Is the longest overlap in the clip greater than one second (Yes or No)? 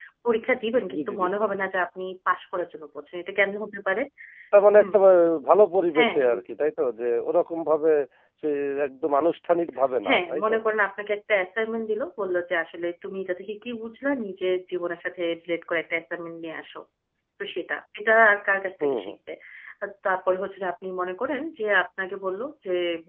No